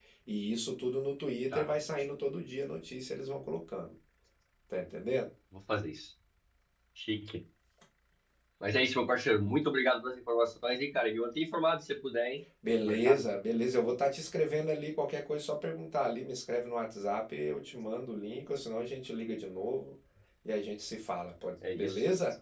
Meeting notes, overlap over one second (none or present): none